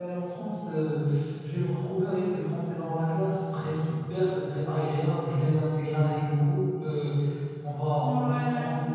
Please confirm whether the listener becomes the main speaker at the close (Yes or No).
No